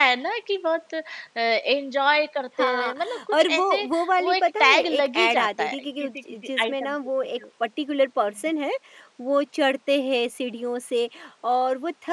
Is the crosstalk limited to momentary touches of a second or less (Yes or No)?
No